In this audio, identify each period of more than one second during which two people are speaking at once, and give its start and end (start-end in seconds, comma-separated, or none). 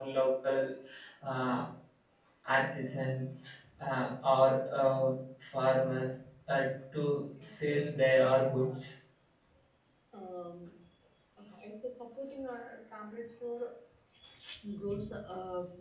7.4-8.8